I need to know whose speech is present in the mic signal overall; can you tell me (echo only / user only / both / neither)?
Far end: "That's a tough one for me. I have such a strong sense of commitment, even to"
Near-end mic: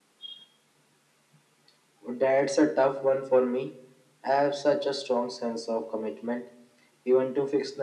echo only